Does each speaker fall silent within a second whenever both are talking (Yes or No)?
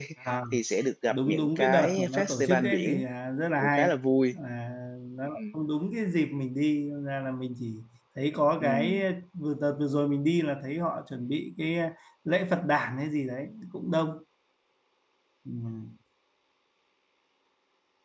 No